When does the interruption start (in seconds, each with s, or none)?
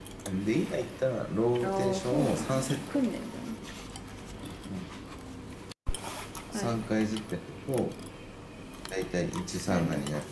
1.6 s